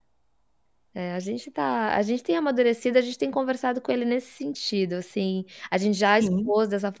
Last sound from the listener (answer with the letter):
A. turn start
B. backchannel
B